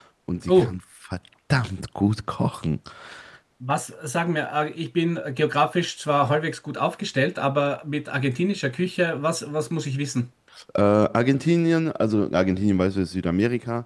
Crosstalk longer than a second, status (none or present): none